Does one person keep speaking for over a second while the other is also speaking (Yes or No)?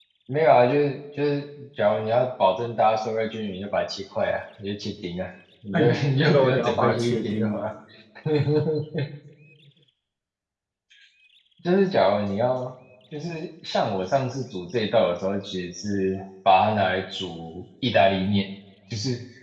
Yes